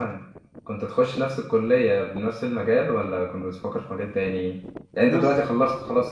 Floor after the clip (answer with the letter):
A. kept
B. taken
A